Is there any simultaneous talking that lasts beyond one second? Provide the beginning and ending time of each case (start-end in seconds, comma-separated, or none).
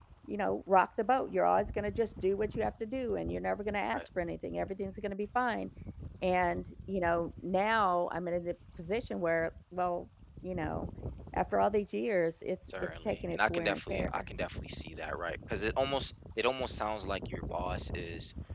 12.8-14.2